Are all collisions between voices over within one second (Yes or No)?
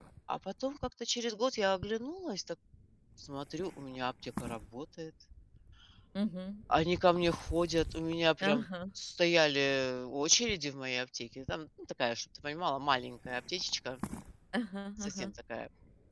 Yes